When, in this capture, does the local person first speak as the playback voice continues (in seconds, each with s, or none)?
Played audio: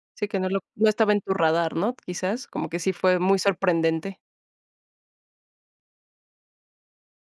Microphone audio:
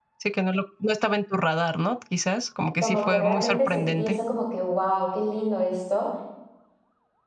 2.8 s